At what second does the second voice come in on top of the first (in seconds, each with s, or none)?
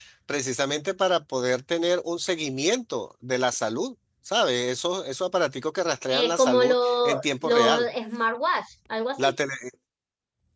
6.1 s